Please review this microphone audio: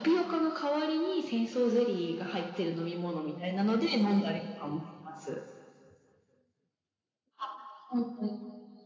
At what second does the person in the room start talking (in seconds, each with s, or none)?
none